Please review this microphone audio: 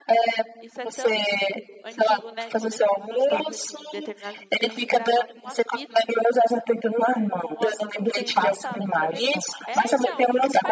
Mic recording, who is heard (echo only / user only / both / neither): both